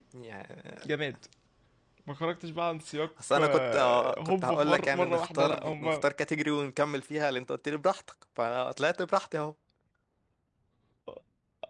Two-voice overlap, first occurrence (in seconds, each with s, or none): 3.2 s